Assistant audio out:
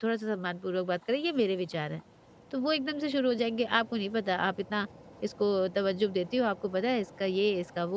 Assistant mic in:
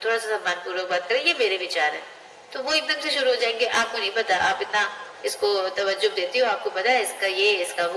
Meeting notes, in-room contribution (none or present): none